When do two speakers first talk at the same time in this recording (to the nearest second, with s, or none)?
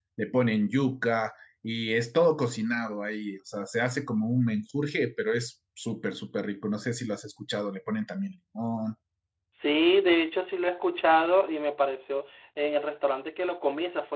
none